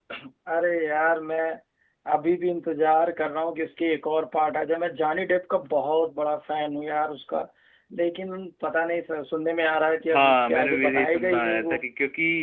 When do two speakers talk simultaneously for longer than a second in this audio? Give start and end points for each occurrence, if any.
10.1-11.8

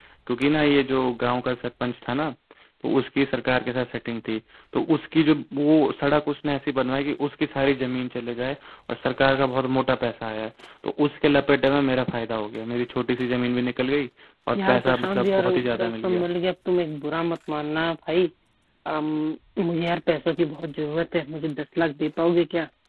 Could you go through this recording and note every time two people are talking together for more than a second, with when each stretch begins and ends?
14.6-16.2

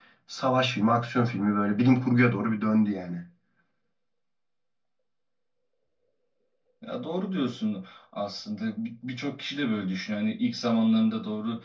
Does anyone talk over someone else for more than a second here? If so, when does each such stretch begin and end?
none

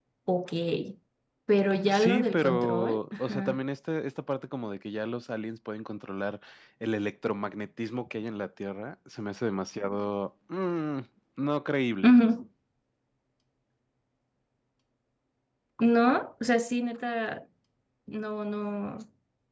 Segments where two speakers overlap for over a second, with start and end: 1.9-3.6

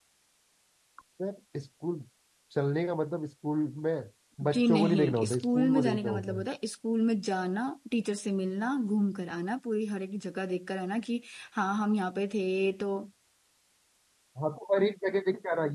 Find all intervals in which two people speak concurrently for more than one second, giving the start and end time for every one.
4.5-6.5

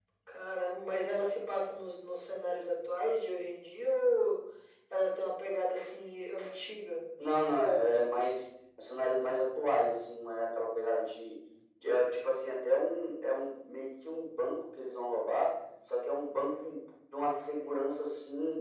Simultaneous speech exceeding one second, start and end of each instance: none

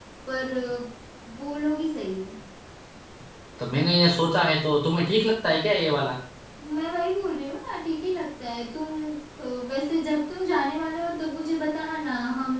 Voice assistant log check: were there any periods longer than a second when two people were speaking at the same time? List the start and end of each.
none

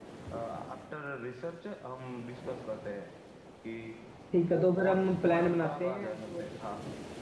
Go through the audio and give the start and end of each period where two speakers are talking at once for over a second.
4.5-6.4

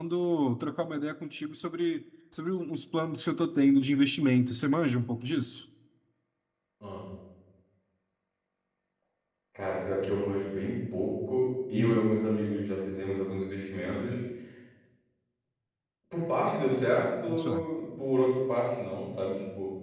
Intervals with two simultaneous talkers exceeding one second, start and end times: none

